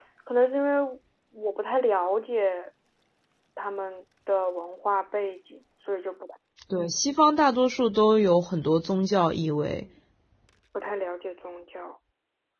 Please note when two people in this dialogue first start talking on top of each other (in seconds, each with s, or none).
none